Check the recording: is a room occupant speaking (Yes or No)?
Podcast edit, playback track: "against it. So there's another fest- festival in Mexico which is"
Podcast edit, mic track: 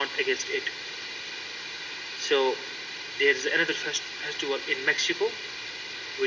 No